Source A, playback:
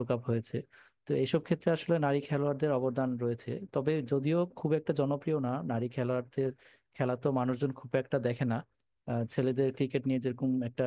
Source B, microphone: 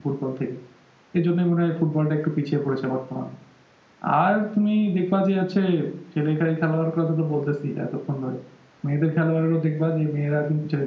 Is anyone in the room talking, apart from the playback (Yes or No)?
Yes